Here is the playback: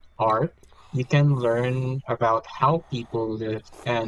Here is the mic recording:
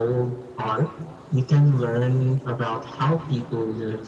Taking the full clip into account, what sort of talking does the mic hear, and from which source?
echo only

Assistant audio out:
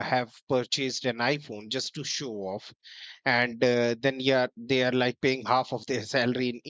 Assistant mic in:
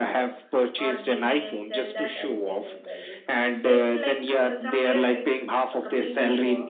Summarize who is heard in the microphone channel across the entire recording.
both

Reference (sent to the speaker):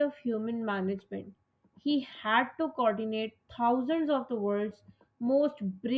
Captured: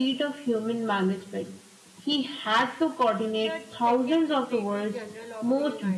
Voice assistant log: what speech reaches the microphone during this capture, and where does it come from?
both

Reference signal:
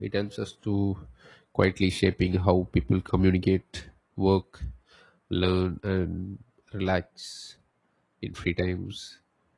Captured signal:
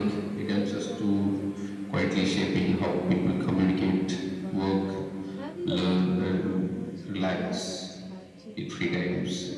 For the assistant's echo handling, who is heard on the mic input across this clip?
both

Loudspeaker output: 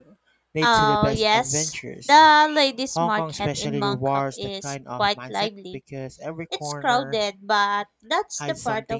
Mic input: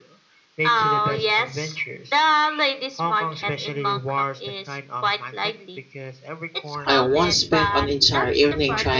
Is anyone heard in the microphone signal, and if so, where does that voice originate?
both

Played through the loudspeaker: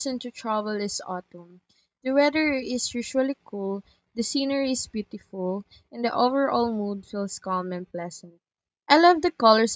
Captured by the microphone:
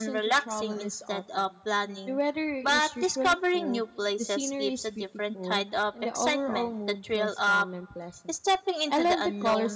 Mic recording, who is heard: both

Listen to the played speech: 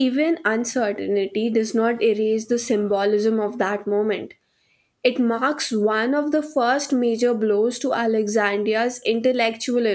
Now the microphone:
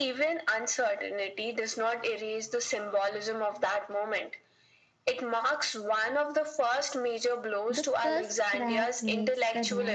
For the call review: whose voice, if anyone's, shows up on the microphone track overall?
both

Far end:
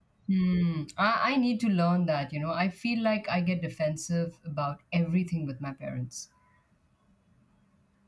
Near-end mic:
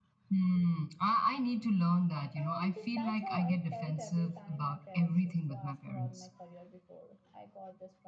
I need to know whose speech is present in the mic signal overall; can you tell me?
both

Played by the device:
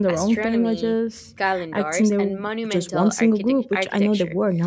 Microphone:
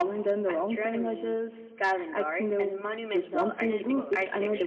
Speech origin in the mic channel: both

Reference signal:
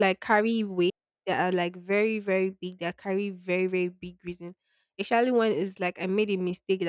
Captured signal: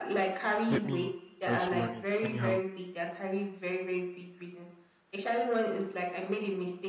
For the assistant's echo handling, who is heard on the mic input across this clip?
both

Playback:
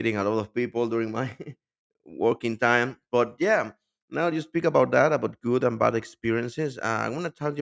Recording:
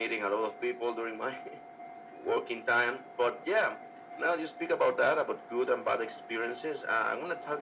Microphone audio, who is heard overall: echo only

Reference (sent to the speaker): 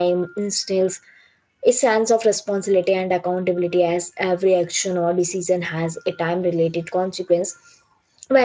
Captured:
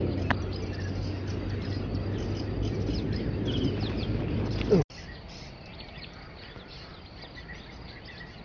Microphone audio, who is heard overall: neither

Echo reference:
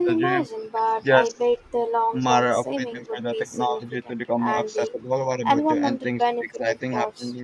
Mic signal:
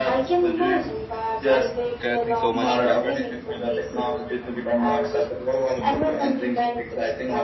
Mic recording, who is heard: both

